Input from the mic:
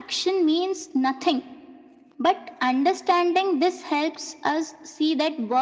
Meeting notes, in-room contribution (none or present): none